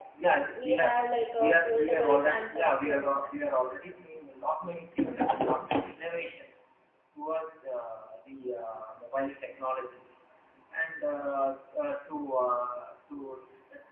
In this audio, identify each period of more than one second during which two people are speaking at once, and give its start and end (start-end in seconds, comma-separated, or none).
1.4-3.2